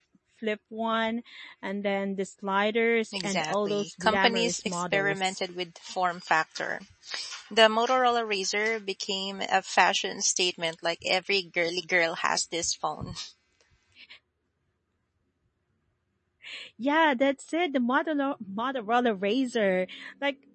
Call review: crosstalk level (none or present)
present